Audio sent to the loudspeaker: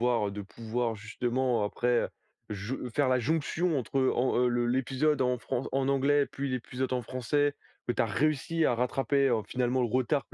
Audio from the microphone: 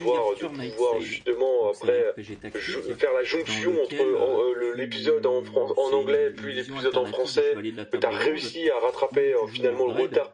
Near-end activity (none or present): present